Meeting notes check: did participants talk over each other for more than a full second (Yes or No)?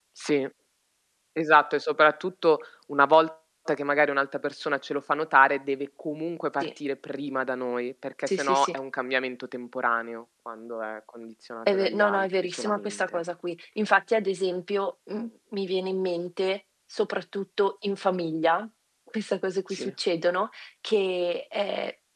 Yes